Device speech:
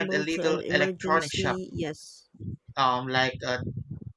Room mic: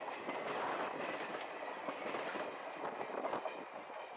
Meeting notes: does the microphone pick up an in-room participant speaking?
No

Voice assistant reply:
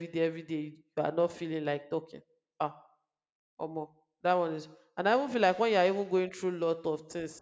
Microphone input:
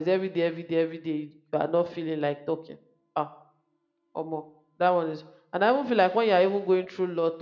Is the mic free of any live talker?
Yes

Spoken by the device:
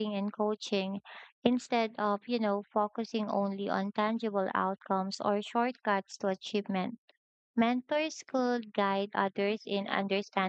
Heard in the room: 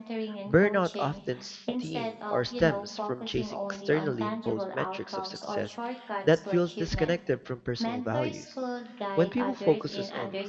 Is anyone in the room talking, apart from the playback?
Yes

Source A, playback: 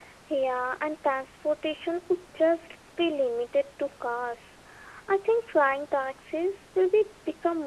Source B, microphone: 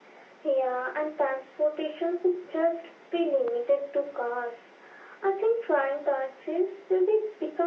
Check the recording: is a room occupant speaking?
No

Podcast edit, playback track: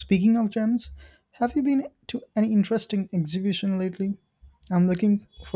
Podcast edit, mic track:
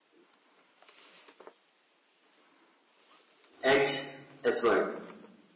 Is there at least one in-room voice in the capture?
Yes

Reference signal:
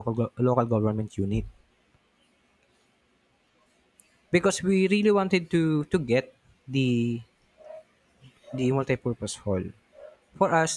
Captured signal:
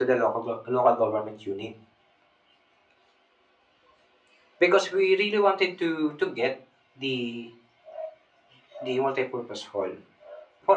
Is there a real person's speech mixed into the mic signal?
No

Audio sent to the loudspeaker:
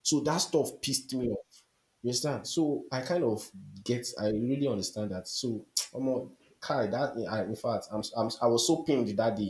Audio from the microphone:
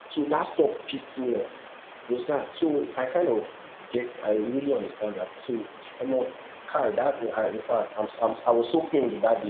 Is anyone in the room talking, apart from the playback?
No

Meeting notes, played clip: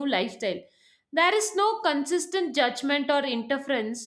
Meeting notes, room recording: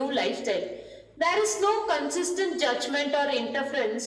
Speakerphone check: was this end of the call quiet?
Yes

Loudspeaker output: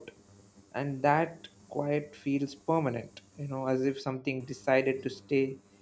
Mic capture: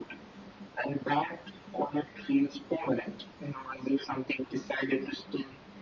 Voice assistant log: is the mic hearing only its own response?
Yes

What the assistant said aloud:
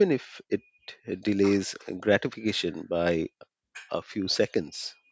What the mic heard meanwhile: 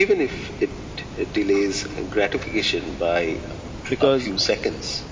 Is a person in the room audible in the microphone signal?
Yes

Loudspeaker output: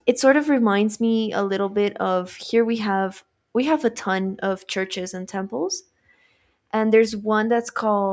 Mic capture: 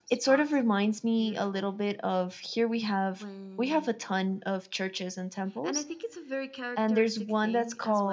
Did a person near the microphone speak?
Yes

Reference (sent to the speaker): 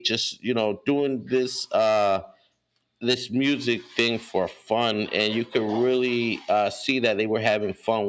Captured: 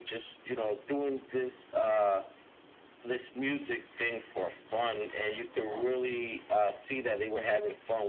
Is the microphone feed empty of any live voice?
Yes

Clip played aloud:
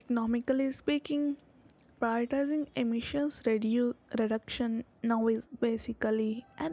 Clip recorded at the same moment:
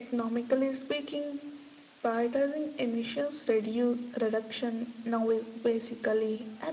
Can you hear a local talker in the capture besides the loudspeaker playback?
No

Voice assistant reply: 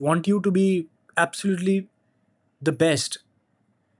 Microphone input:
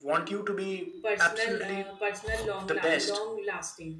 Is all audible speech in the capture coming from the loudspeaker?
No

